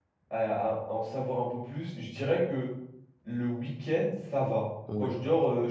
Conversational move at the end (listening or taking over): listening